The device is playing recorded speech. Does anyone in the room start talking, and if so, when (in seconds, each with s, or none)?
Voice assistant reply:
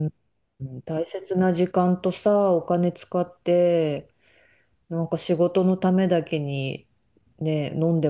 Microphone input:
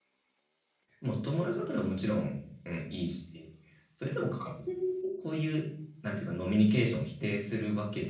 1.0 s